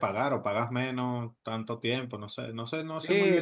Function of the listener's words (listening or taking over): taking over